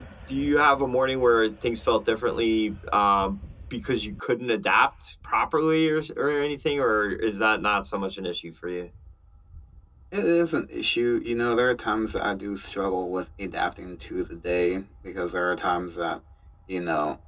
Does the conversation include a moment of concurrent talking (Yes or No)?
No